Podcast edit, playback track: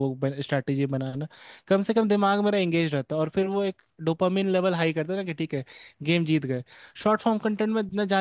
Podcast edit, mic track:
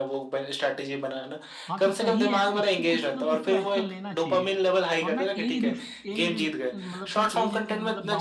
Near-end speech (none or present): present